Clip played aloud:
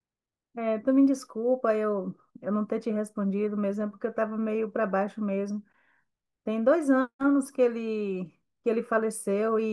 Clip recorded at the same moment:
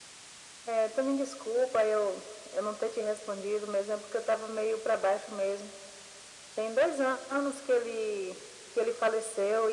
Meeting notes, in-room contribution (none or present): none